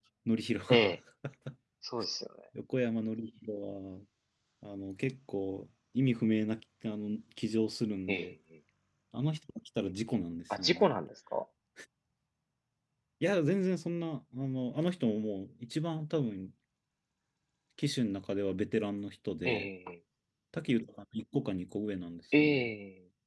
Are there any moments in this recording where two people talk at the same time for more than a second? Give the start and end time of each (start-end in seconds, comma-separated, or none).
none